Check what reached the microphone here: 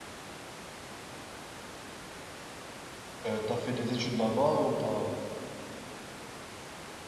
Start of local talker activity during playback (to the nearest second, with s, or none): 3 s